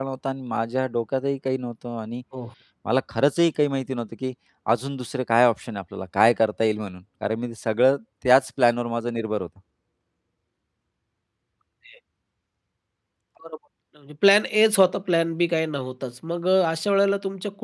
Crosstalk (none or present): none